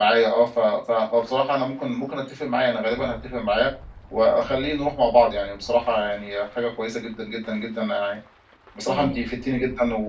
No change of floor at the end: Yes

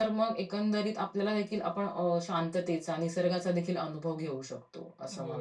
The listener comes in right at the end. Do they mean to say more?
Yes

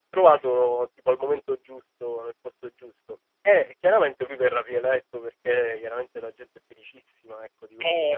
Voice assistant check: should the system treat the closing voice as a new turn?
No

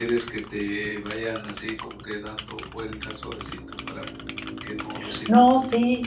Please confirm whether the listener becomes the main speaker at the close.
Yes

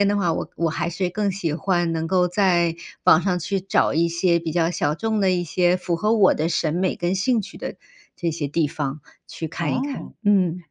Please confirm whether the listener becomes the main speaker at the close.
Yes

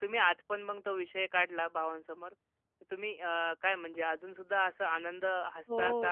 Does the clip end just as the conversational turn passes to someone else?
Yes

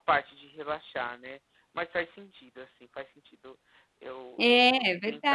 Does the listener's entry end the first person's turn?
Yes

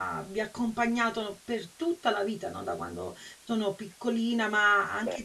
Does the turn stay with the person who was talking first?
Yes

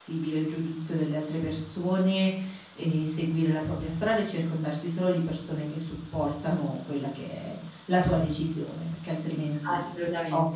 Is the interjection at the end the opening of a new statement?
Yes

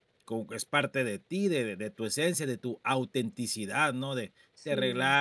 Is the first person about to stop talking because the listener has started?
No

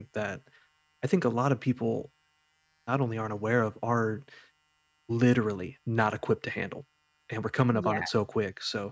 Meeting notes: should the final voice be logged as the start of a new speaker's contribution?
No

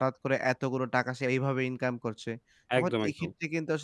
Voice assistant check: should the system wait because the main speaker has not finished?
Yes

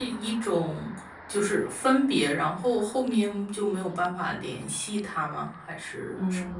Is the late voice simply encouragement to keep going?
No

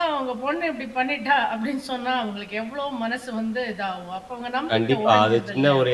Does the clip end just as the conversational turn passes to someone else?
Yes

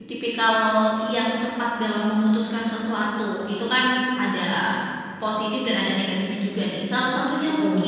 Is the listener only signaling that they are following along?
Yes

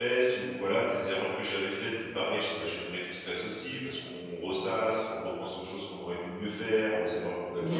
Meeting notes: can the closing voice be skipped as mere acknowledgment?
Yes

